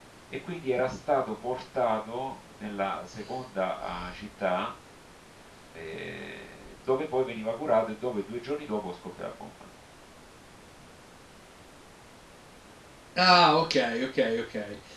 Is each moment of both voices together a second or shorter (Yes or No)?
Yes